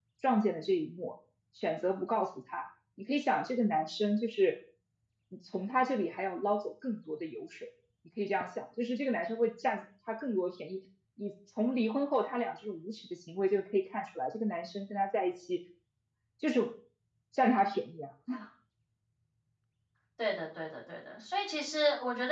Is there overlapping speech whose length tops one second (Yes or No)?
No